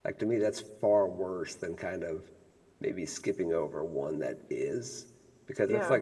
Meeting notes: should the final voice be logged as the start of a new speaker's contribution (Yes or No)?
No